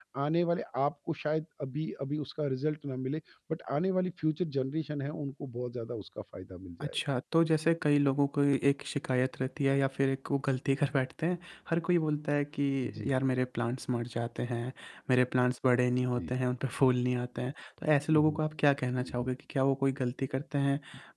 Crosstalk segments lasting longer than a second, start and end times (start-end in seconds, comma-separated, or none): none